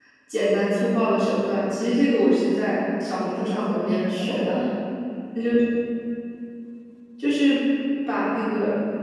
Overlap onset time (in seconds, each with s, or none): 3.2 s